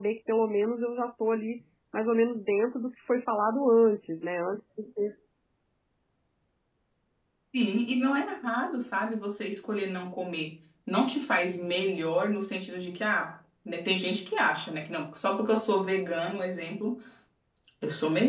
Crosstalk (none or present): none